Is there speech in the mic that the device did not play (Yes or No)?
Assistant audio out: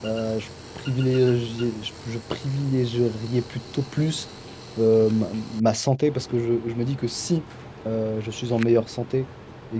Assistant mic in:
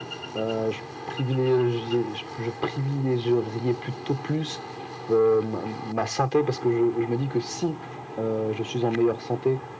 No